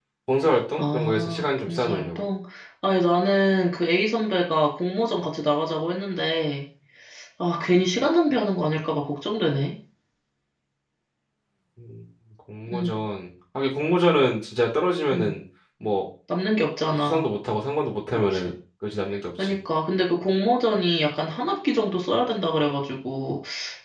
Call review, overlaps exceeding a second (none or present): present